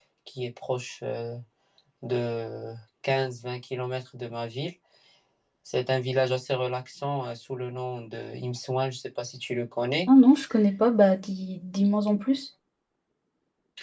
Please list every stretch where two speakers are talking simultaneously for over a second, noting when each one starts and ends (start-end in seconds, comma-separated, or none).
none